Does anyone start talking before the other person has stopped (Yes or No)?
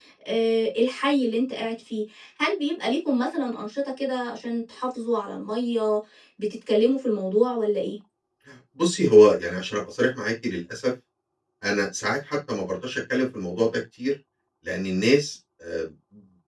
No